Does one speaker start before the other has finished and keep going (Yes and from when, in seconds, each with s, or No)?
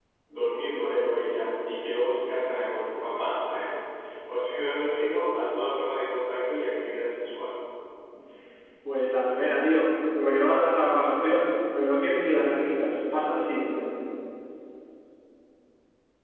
No